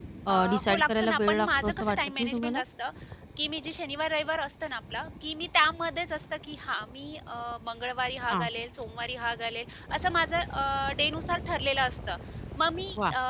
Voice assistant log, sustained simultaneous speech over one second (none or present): present